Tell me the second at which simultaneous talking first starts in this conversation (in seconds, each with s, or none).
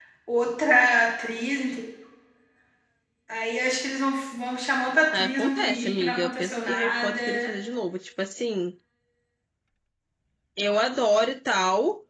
5.1 s